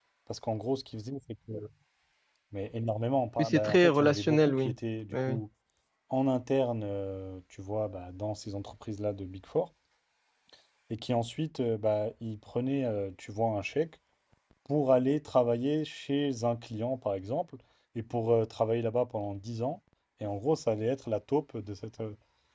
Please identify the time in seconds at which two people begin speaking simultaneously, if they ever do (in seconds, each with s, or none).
3.4 s